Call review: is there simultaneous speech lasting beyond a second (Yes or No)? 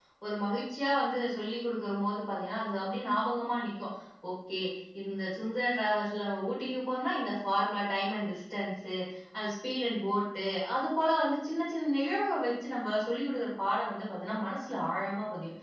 No